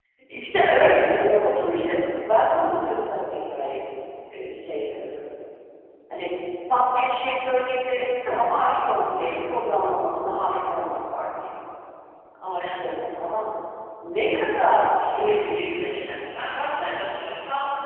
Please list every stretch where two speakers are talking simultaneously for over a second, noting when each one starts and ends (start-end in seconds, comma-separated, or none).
15.1-16.6